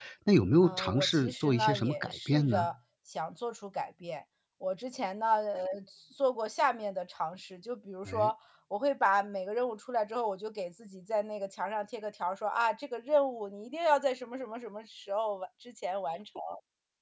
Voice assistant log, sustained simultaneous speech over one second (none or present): present